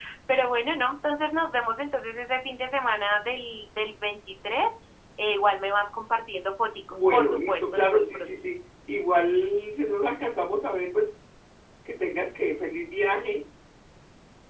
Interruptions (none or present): present